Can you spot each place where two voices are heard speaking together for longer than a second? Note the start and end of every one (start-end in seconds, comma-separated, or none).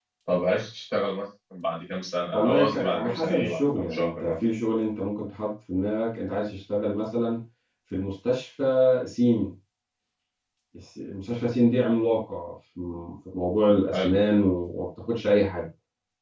2.3-4.3